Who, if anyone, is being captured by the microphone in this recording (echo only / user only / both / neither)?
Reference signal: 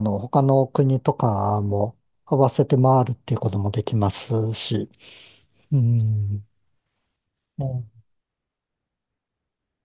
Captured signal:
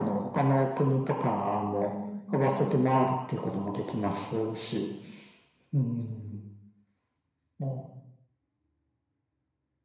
both